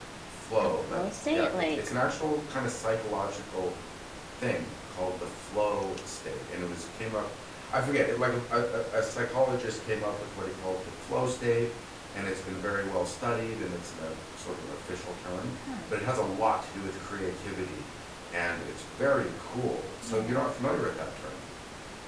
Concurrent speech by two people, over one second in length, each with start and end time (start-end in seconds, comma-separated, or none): 0.6-1.9